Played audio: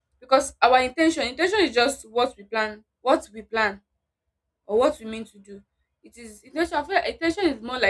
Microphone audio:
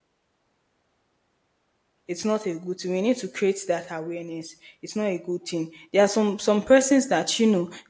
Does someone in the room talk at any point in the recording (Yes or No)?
Yes